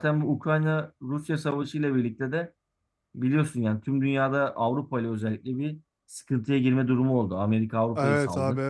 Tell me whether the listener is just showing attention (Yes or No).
No